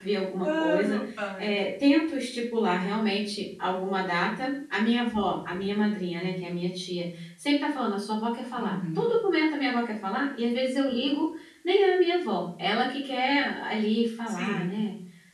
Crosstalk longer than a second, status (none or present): none